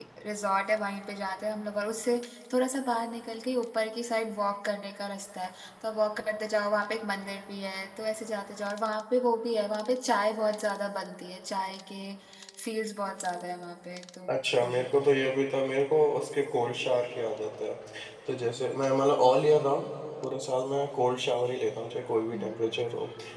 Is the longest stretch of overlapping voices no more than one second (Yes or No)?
Yes